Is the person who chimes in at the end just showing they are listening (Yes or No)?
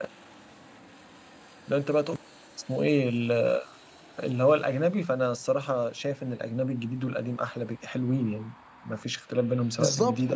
No